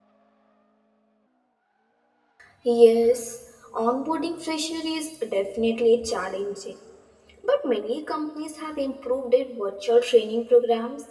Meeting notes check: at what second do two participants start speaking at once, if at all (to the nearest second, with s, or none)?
none